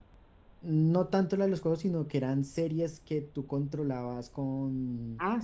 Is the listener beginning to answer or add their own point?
Yes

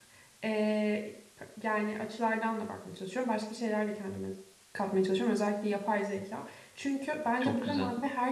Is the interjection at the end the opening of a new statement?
No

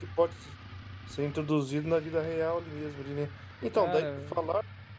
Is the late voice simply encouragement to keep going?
Yes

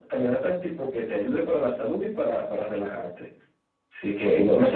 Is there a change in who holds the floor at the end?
No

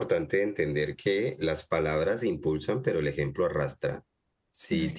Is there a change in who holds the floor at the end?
No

